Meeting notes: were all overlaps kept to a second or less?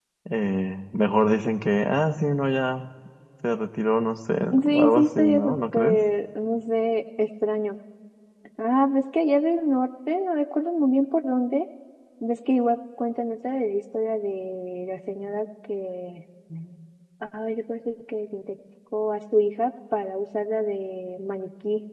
No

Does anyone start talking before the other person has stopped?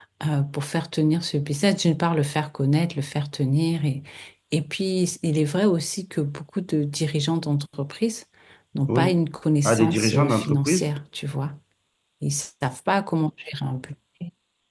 Yes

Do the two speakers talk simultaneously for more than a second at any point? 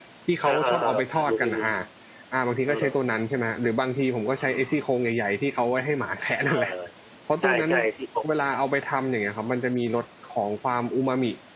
Yes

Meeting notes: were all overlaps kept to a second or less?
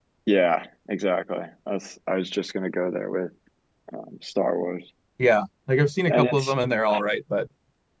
Yes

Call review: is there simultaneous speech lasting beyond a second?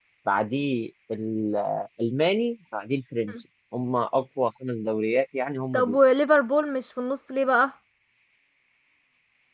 No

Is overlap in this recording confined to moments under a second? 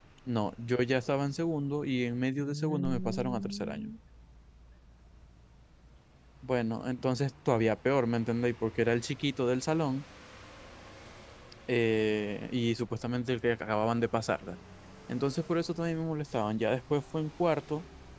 No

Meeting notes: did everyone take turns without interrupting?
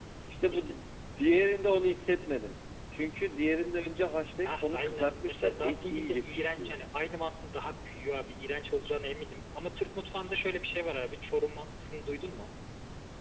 No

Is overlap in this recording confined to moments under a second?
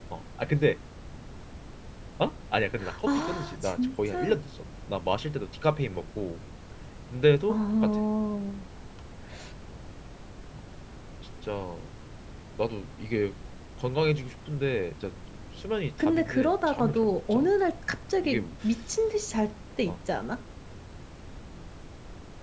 No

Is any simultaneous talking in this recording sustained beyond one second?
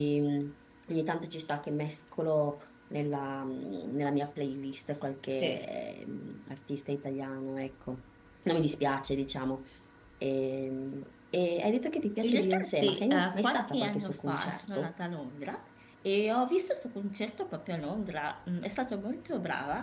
Yes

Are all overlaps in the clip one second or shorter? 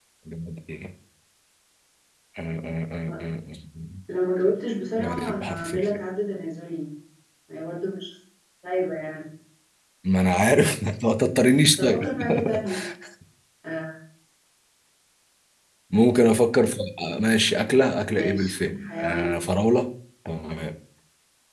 No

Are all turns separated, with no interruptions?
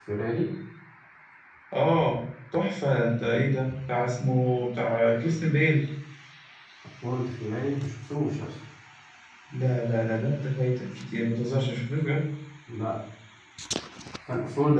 Yes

